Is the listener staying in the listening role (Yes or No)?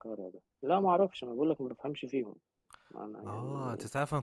No